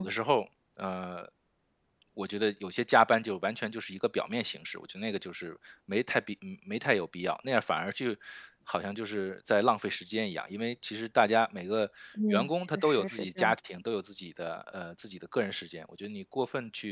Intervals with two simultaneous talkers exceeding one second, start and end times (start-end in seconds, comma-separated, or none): 12.3-13.5